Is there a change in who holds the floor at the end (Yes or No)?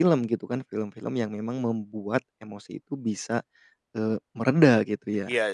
Yes